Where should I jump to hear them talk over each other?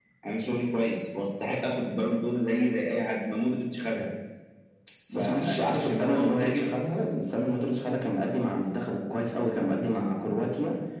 5.1 s

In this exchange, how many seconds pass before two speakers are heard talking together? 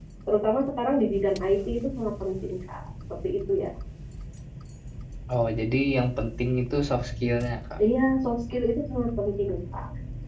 none

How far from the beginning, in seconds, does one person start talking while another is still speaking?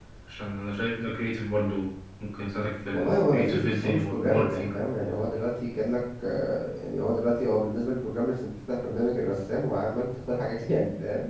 2.9 s

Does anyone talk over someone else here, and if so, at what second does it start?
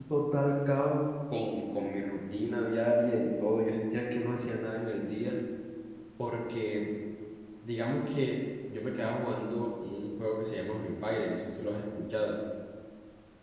none

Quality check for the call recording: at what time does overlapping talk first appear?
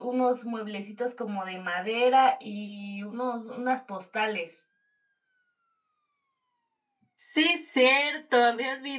none

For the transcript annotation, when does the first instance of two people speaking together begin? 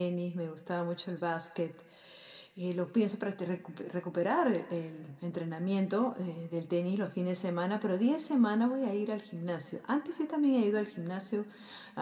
none

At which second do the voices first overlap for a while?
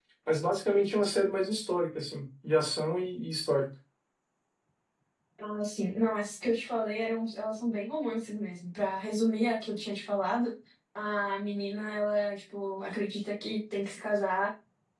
none

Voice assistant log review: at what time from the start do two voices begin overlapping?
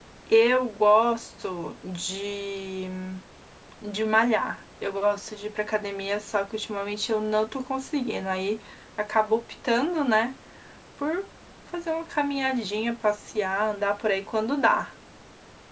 none

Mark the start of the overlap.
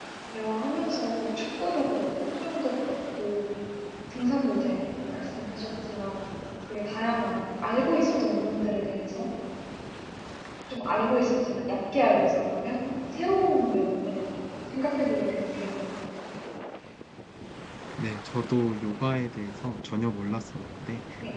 none

